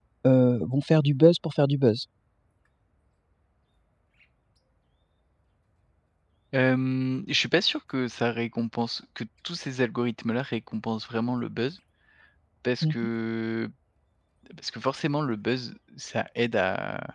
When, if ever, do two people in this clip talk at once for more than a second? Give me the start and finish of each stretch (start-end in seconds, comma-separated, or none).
none